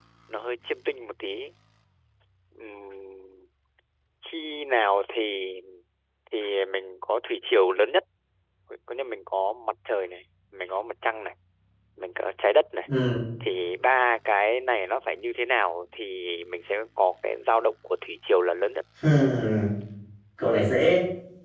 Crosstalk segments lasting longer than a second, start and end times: none

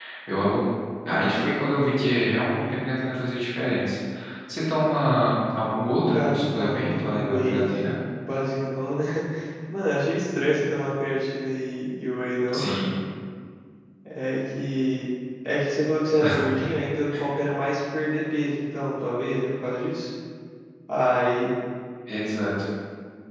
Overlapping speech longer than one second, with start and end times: 6.1-7.7

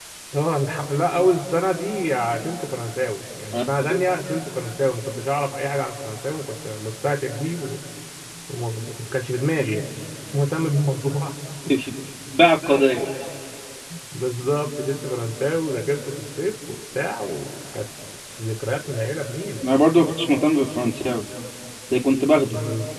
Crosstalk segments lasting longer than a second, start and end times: none

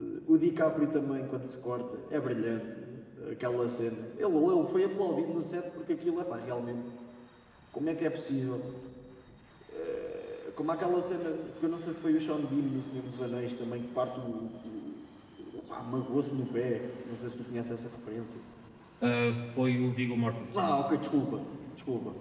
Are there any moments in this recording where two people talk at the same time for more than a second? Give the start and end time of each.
none

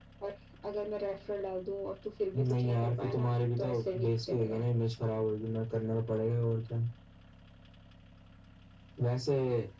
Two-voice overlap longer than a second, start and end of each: 2.4-4.6

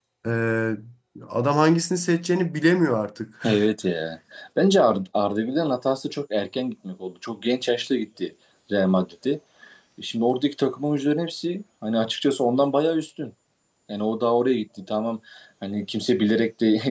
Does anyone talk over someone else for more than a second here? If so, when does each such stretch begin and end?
none

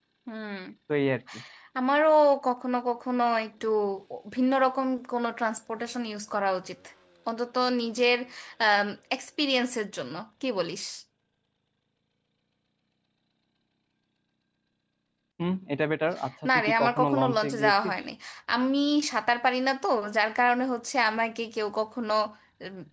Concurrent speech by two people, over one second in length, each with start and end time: 16.5-17.9

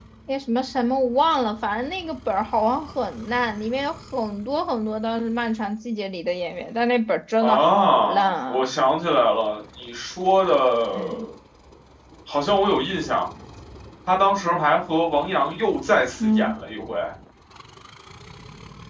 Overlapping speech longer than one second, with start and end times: 7.4-8.7

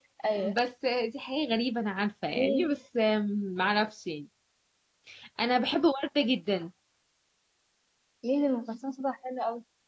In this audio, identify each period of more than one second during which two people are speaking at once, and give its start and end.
none

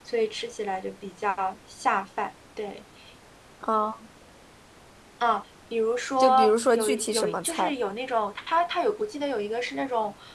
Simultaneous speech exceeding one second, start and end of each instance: 6.2-7.7

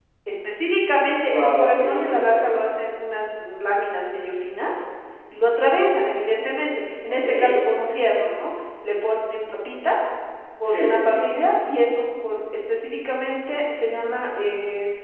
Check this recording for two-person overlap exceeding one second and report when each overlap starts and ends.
1.2-2.6

